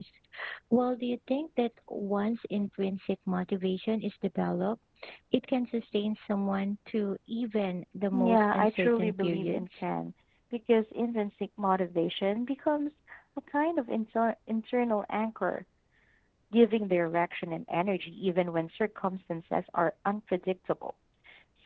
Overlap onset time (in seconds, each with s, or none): 8.1 s